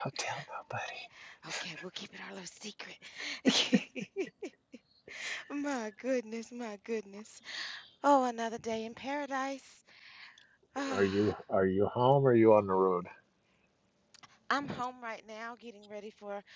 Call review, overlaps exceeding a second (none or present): none